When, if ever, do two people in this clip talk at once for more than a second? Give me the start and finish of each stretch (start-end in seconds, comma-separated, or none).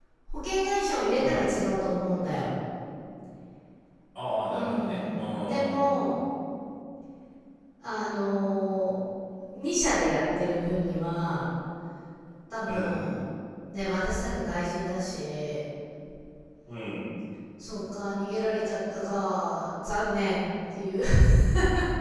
4.5-6.0